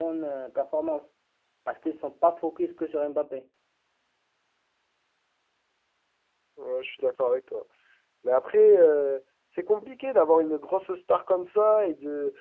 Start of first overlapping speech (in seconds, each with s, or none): none